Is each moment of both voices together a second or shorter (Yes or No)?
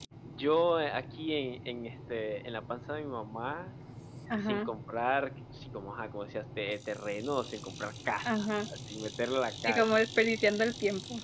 Yes